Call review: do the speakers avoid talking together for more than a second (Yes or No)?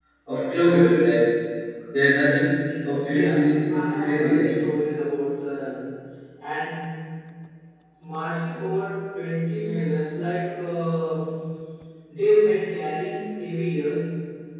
No